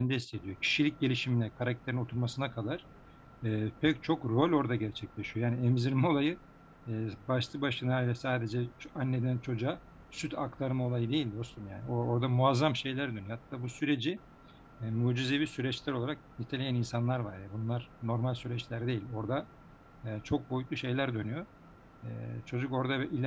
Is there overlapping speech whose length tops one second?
No

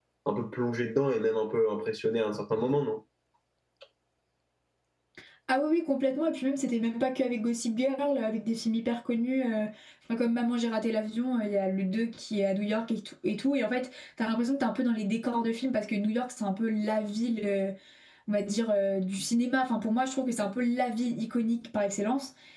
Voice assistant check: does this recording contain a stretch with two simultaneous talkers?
No

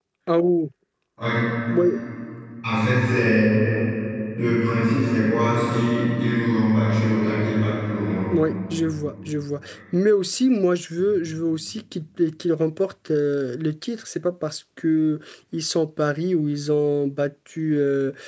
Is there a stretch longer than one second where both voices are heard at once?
No

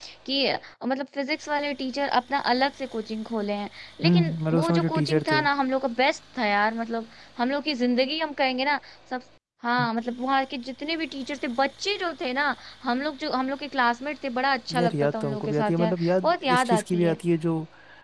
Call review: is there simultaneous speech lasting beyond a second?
Yes, from 4.0 s

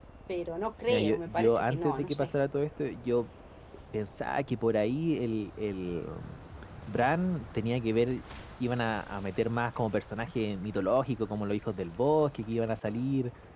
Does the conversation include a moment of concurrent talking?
Yes, from 0.9 s

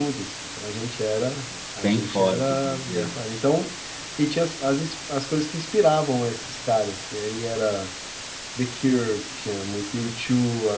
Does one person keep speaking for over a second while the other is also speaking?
Yes, from 1.8 s

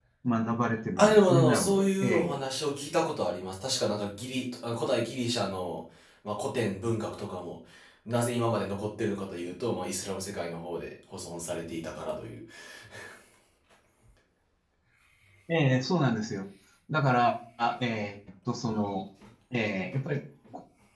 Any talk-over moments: Yes, from 1.0 s

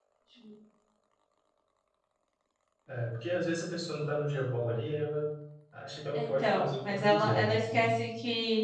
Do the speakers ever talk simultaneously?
Yes, from 6.1 s

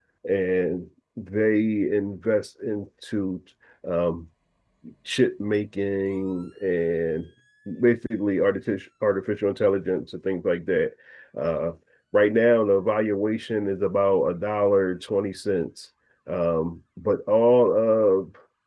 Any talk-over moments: No

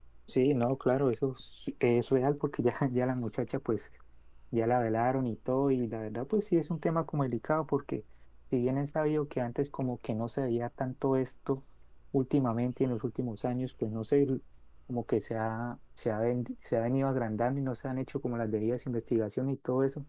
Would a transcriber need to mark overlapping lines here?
No

